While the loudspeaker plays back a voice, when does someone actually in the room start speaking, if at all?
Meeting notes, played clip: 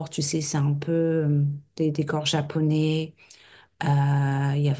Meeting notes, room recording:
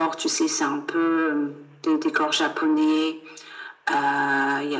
none

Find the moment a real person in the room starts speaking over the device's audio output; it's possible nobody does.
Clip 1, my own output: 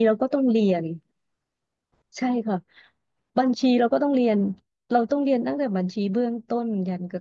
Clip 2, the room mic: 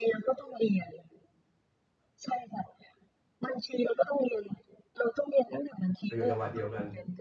6.2 s

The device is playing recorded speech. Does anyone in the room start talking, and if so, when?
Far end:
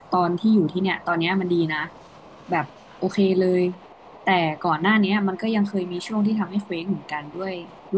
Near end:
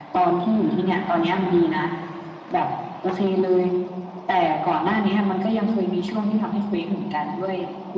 none

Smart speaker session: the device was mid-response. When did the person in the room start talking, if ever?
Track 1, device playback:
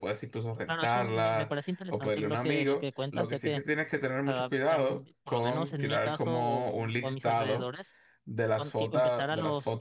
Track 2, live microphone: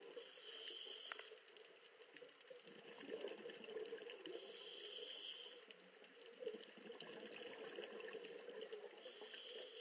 none

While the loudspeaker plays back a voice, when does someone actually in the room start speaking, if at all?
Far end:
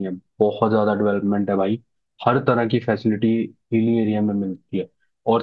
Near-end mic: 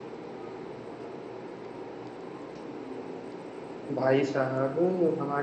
3.9 s

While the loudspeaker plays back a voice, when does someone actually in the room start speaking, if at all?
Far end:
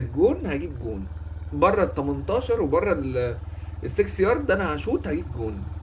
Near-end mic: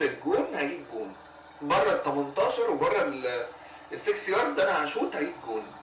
none

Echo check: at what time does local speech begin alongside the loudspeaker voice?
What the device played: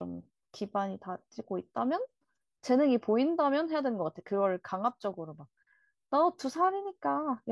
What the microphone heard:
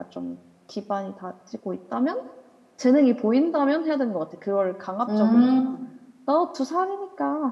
5.1 s

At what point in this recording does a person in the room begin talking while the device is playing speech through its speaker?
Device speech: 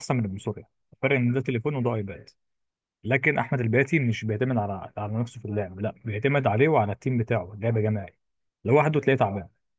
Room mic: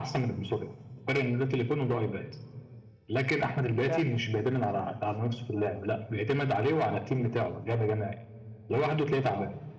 3.8 s

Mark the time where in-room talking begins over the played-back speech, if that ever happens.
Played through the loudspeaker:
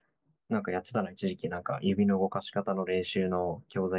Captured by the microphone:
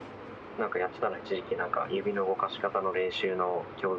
none

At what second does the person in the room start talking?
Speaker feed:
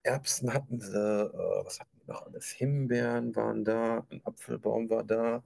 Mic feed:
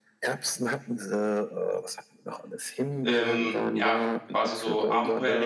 3.0 s

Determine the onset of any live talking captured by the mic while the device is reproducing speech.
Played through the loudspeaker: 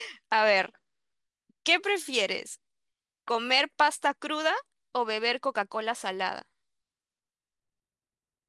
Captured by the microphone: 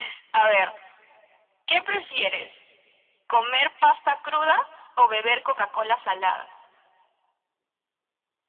none

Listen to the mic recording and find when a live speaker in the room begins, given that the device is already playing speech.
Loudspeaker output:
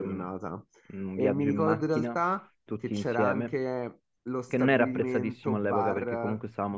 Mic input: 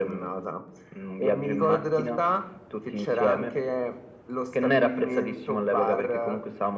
none

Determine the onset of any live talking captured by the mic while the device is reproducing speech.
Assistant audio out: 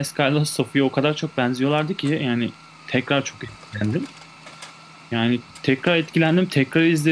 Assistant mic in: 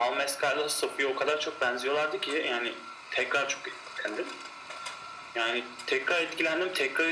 none

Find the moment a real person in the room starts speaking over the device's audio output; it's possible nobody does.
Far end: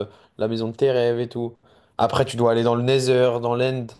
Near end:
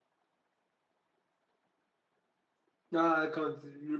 2.9 s

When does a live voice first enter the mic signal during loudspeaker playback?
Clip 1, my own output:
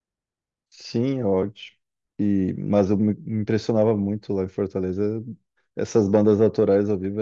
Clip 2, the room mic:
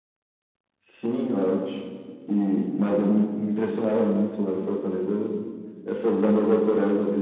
none

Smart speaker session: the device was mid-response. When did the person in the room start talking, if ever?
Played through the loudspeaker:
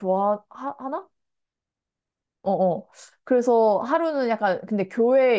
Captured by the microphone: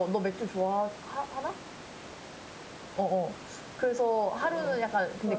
4.4 s

